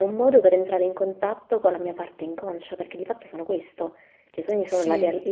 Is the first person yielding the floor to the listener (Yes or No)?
No